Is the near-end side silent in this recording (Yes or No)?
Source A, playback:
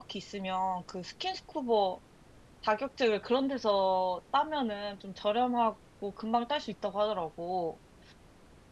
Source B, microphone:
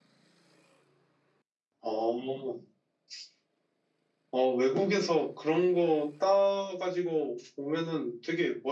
No